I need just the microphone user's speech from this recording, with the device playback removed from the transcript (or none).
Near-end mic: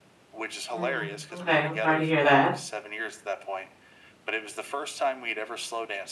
Mm, okay. I'm sorry to hear that.